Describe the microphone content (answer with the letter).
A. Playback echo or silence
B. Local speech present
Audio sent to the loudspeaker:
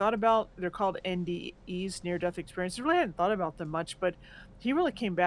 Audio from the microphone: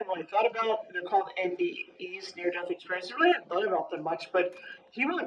A